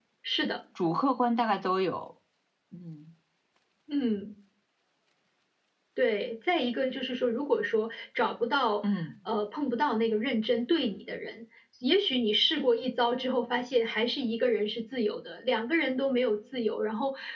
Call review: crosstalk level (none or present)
none